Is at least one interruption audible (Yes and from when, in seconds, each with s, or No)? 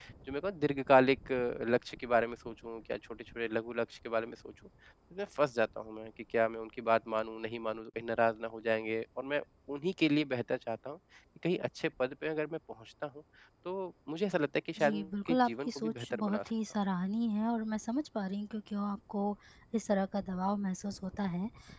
Yes, from 14.8 s